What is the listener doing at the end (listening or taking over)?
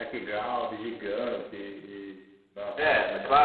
taking over